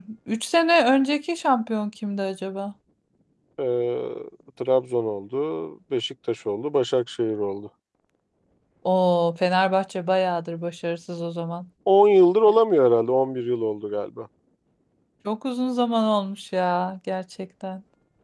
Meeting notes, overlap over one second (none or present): none